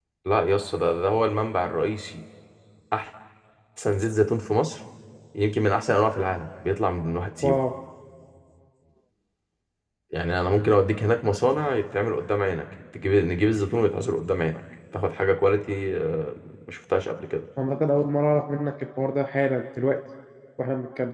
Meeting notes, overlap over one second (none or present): none